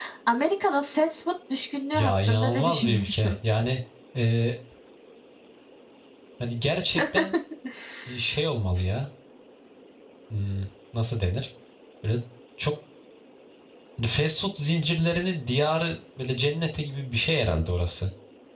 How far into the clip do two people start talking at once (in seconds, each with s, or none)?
1.9 s